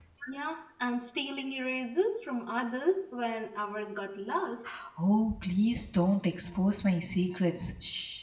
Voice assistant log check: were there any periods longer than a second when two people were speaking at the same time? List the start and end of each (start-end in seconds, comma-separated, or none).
none